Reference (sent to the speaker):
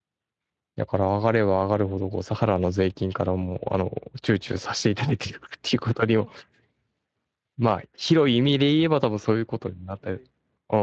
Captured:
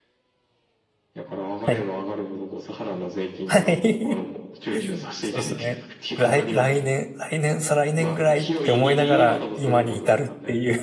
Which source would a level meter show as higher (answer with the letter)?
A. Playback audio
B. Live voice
B